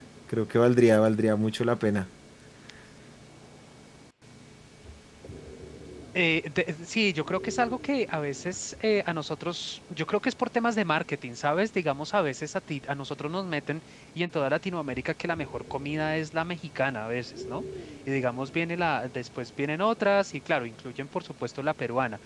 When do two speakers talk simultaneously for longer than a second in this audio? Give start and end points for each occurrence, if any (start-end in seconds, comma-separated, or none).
none